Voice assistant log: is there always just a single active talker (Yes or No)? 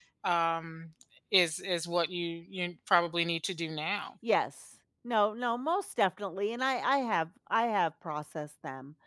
Yes